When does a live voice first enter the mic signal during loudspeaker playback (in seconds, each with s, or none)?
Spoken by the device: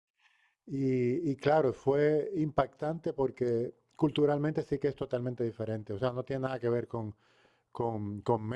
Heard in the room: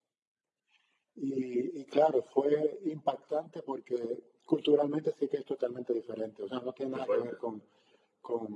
6.9 s